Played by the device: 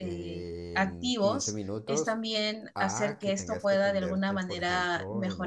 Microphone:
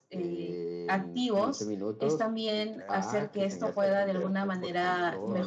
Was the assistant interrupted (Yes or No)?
Yes